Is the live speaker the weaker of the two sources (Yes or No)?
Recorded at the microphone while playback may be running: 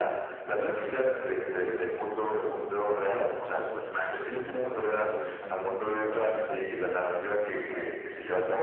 Yes